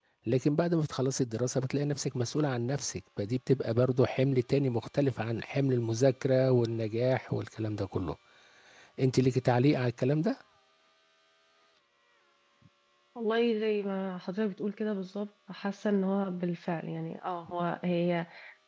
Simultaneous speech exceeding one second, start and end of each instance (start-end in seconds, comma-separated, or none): none